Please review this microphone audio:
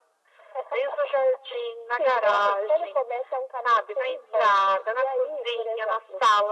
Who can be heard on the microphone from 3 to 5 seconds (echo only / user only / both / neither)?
echo only